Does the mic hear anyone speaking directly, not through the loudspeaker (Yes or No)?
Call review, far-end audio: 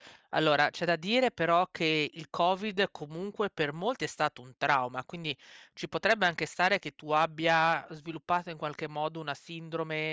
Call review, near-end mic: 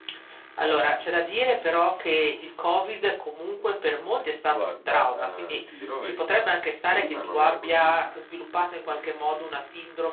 Yes